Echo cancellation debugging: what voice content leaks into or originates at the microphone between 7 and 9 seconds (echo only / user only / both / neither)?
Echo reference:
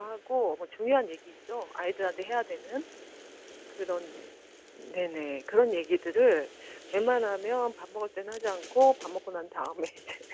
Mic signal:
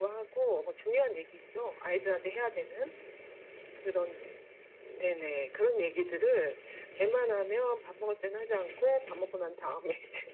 echo only